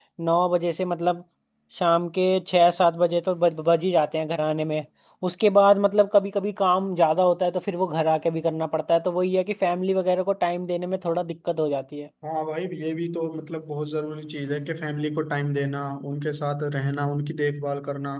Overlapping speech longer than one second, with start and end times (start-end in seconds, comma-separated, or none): none